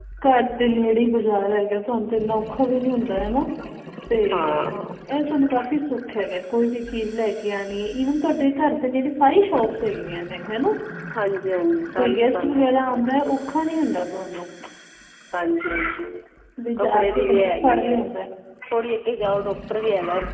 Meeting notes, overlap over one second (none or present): present